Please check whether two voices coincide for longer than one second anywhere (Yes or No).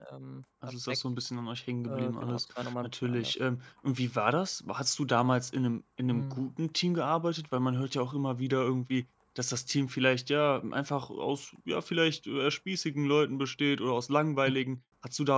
Yes